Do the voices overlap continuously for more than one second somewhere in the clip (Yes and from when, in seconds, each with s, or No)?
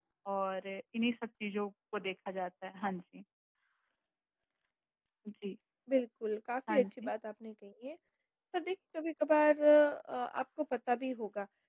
No